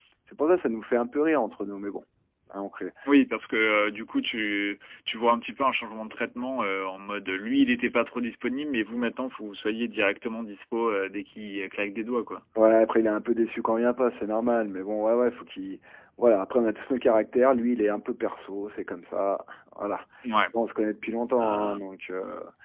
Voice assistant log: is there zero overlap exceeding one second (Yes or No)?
Yes